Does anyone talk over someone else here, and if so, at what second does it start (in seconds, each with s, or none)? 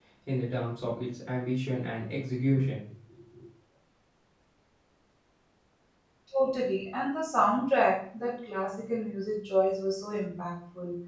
none